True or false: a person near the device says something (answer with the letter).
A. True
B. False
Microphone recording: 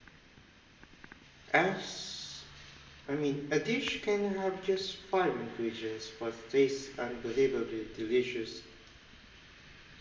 A